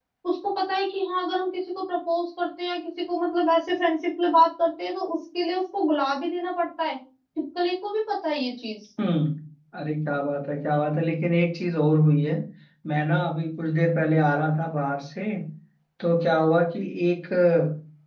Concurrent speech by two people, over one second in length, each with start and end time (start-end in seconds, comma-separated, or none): none